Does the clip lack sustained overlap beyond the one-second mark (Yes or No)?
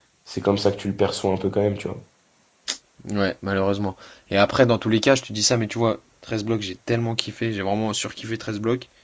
Yes